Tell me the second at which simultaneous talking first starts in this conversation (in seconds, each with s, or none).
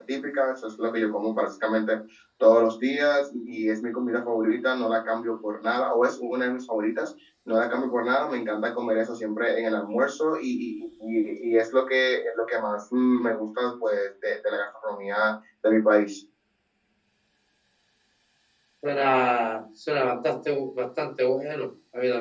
none